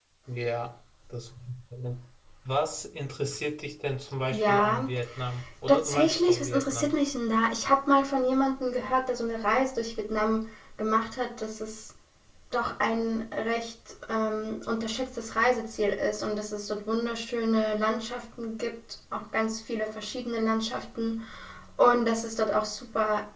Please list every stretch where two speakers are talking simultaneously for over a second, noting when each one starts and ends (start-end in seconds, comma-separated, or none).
5.7-6.9